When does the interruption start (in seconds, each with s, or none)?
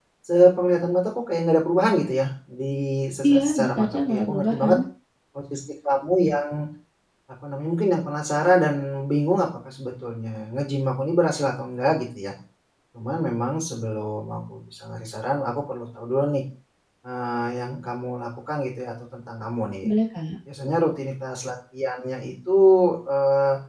3.3 s